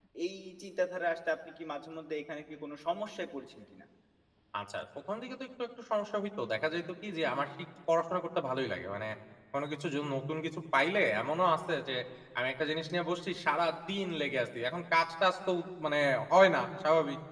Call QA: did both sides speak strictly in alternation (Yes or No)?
Yes